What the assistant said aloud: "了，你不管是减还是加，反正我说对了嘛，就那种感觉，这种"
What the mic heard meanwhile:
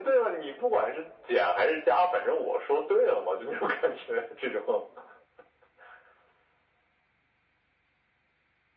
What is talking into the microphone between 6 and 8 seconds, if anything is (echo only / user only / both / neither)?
neither